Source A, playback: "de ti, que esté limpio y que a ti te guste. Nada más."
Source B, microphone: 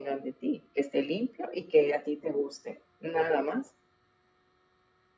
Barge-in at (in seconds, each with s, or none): none